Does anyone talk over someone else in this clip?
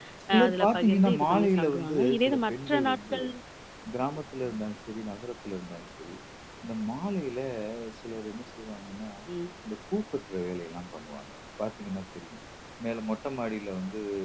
Yes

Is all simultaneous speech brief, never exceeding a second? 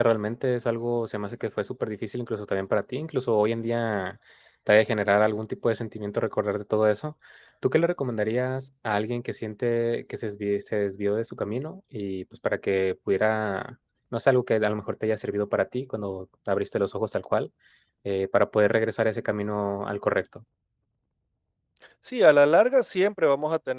Yes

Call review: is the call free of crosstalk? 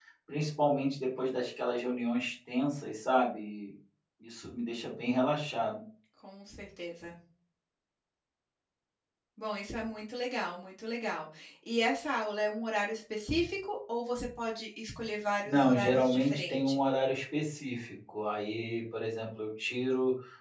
No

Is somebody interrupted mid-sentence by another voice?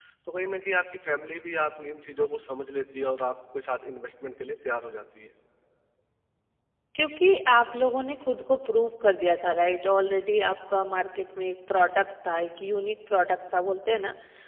No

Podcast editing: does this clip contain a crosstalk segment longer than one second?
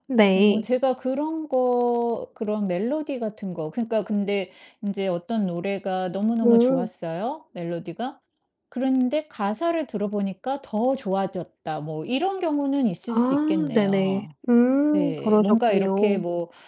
Yes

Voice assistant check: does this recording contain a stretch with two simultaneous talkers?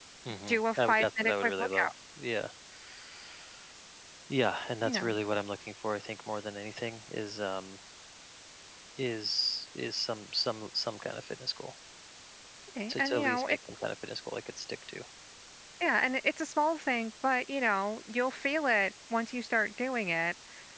Yes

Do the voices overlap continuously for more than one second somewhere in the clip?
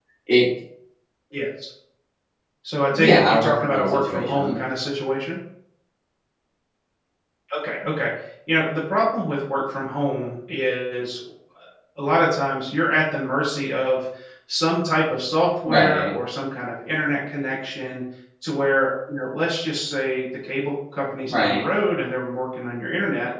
Yes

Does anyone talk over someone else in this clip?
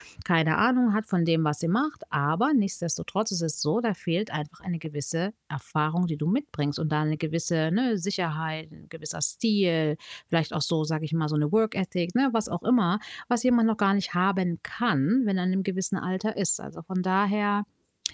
No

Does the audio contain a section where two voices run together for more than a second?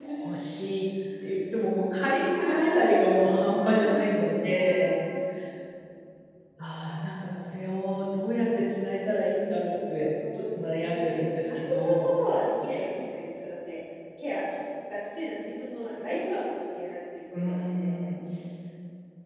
Yes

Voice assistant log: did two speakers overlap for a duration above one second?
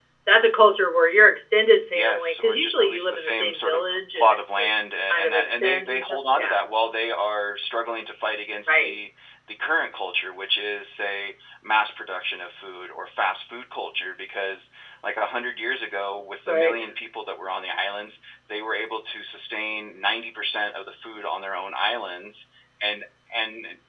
Yes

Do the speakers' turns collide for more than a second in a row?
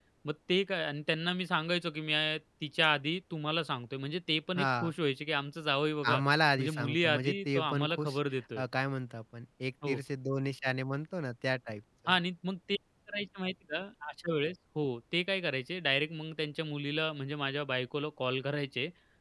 Yes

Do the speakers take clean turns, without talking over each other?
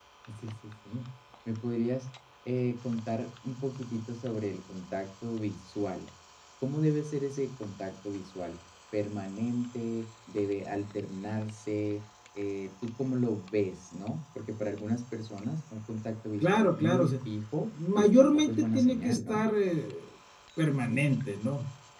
No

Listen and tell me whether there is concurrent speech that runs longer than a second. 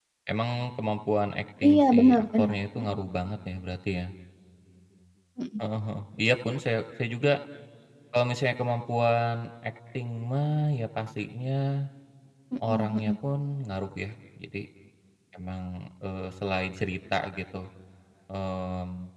Yes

